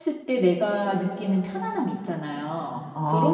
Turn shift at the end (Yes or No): Yes